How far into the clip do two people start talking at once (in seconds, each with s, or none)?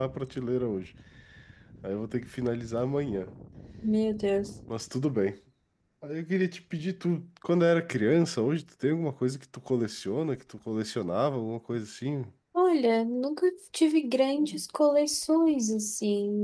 none